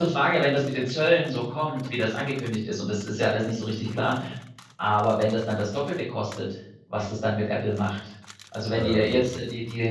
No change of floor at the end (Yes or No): Yes